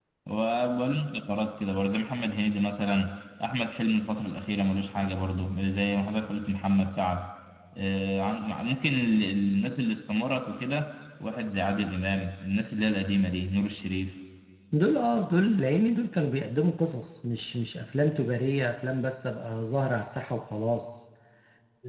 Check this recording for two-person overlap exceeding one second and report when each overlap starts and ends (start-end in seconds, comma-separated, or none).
none